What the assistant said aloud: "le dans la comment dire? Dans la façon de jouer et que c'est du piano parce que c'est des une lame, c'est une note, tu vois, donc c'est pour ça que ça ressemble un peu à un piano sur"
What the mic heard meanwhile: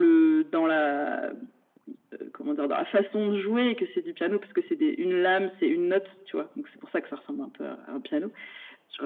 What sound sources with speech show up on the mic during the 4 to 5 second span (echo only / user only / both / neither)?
echo only